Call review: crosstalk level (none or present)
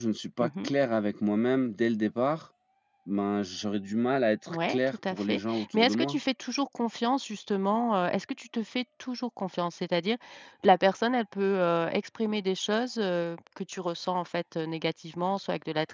present